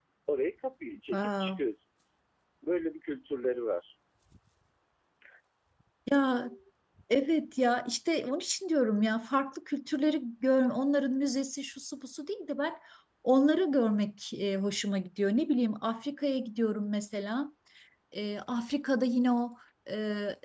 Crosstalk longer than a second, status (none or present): none